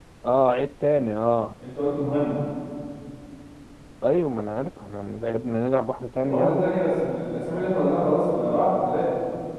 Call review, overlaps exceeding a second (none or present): none